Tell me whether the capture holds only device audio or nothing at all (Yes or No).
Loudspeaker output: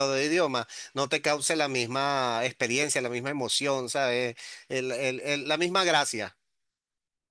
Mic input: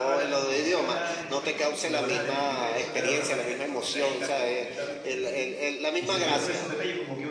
No